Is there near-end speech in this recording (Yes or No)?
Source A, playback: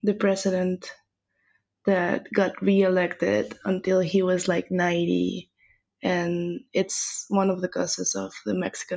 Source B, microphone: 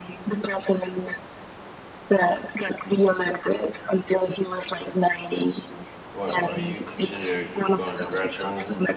Yes